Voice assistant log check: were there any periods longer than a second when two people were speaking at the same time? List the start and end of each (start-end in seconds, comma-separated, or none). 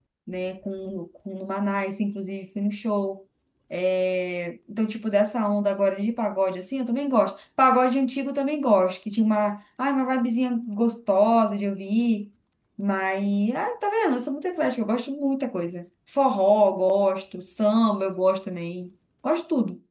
none